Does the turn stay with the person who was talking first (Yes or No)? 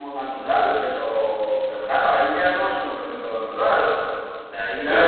Yes